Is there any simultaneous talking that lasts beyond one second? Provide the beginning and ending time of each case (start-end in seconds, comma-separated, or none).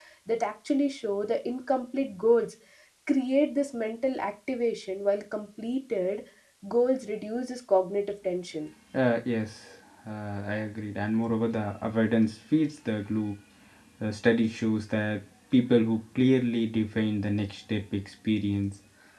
none